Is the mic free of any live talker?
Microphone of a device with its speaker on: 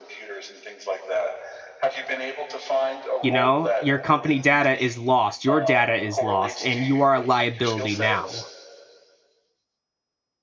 No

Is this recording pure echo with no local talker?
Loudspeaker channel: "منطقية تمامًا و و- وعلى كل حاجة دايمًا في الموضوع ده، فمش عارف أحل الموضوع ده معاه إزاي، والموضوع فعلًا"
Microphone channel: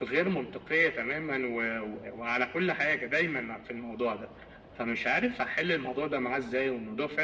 Yes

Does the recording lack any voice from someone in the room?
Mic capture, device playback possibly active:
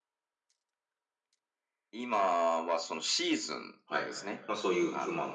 No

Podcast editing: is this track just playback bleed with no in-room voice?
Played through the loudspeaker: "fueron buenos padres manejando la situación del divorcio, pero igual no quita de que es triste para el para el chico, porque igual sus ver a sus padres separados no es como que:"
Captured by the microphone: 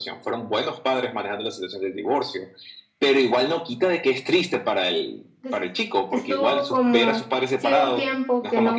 No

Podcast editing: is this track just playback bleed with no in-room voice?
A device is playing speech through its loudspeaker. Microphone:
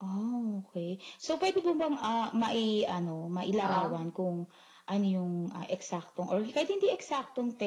No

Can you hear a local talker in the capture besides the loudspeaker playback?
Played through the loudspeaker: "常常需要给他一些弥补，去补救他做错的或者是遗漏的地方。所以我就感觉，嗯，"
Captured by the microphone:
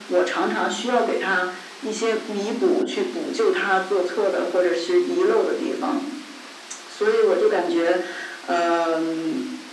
No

